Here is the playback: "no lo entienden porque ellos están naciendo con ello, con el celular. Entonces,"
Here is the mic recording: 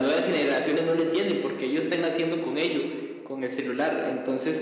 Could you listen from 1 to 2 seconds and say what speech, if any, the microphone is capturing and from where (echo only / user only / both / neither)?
echo only